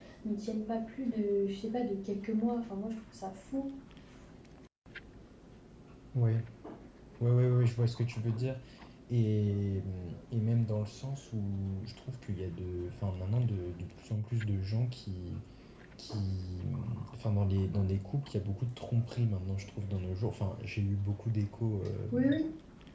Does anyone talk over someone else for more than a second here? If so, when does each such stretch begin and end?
none

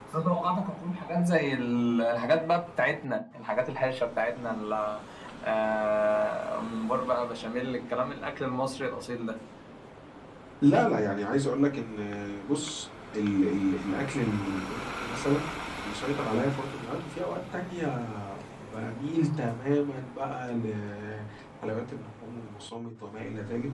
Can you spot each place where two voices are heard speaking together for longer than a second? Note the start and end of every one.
none

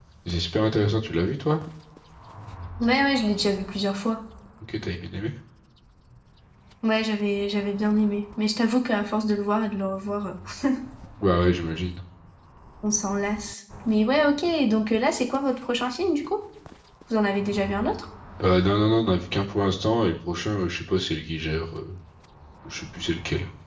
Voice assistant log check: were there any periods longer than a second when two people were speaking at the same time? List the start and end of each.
none

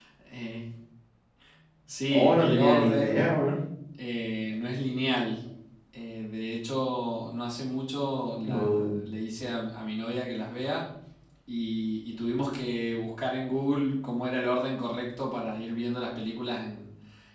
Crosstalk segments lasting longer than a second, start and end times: 2.1-3.3

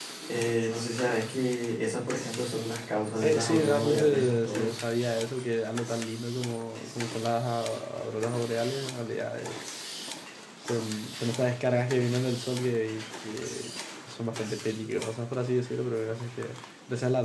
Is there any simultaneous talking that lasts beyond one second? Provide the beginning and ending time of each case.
3.2-4.8

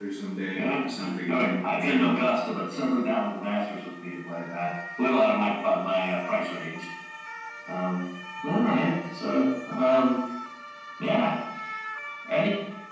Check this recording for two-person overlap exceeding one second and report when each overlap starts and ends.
0.6-2.1

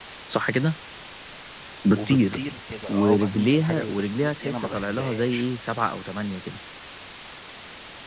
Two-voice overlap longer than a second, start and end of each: 2.9-5.5

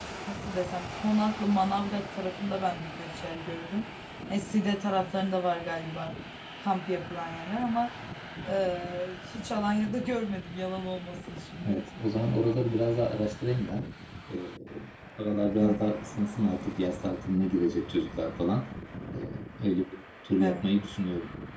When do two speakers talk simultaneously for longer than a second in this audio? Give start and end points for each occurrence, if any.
none

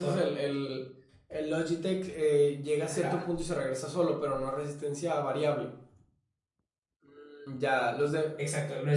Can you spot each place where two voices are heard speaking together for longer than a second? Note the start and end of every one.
none

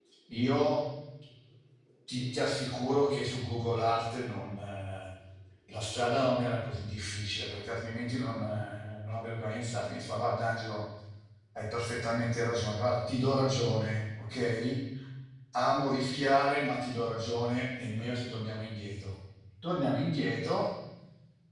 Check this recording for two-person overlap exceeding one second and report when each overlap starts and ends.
none

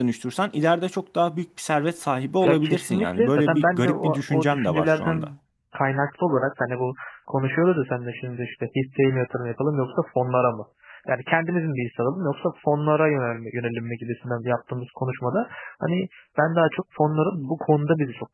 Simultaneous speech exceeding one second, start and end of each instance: 2.4-5.3

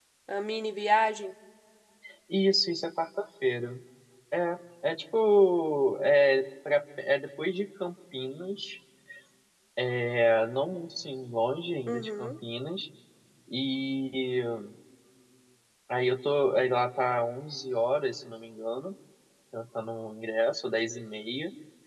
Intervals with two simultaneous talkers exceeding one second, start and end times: none

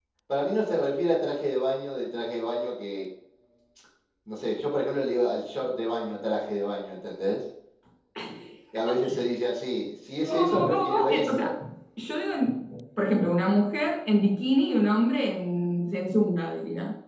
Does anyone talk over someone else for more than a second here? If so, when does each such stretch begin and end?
10.2-11.5

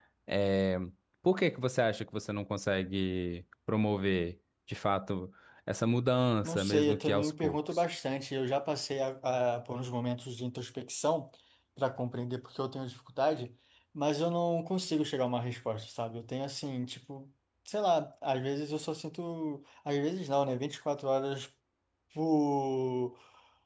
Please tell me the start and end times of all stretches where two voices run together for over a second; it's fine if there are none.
6.4-7.8

